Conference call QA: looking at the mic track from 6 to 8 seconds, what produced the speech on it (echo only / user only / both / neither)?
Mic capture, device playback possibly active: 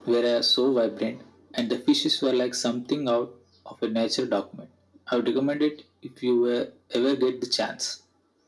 echo only